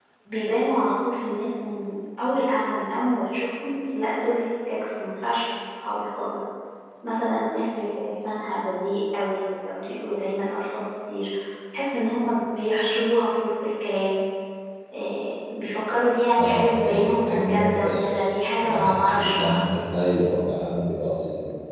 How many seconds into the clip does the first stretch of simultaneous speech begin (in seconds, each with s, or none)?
16.4 s